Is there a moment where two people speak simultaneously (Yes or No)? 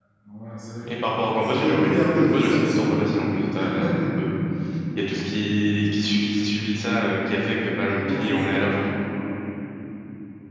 Yes